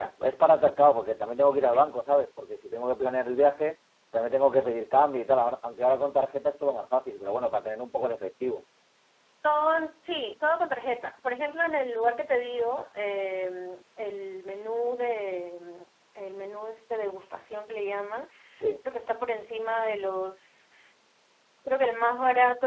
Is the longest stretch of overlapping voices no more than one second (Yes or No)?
Yes